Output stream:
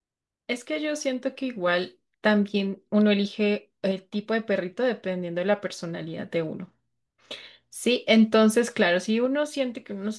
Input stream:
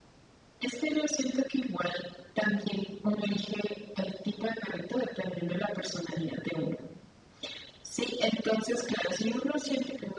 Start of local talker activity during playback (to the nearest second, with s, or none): none